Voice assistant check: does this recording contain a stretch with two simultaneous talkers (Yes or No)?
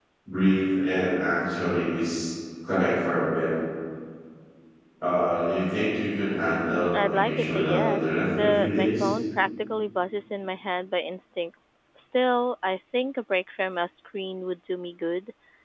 Yes